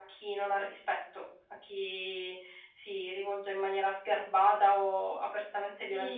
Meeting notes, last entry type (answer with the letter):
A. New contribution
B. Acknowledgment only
A